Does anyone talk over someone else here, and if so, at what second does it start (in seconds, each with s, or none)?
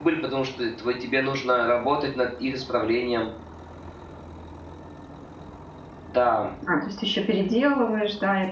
none